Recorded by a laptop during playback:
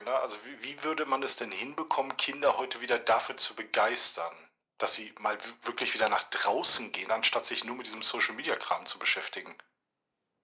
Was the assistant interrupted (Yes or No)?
No